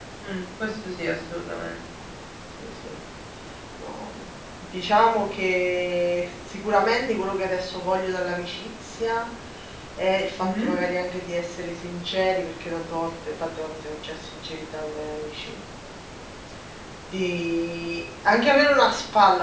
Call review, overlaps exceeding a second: none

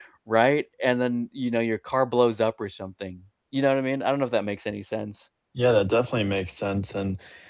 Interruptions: none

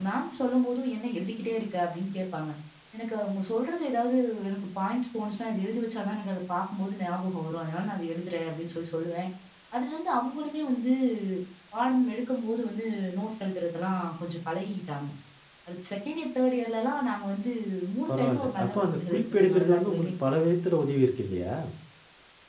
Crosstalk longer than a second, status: present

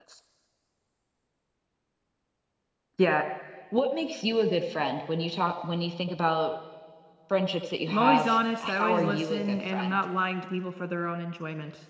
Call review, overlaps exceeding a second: present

